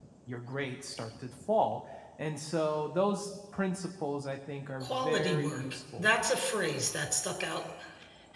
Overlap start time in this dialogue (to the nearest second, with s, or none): 5 s